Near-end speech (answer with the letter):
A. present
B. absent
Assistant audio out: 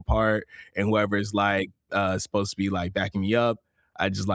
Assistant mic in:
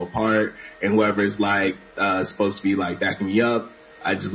B